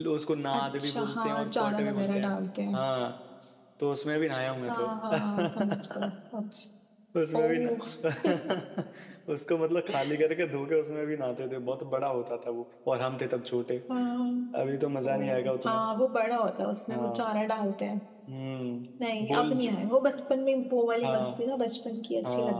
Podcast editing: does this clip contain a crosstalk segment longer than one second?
Yes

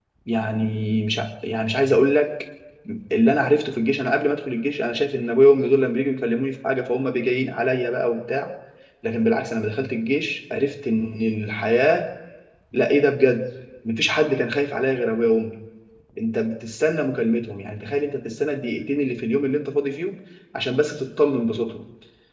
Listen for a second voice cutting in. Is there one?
No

